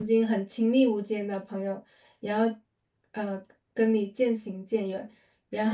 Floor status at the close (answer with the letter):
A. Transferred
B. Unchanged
B